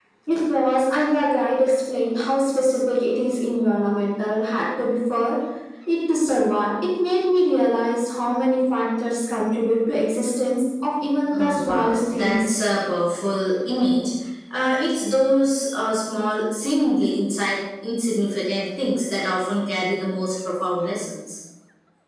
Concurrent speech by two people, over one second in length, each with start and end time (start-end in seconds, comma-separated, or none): 11.3-12.5